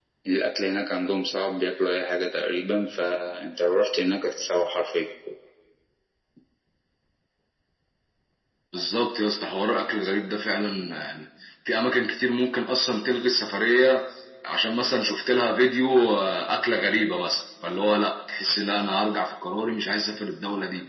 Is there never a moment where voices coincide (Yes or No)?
Yes